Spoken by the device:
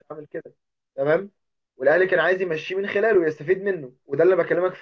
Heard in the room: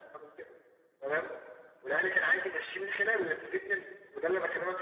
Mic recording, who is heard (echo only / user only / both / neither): echo only